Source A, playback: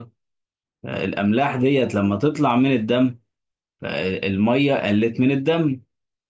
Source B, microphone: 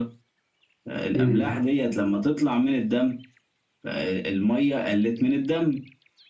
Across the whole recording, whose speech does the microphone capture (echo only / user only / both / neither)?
both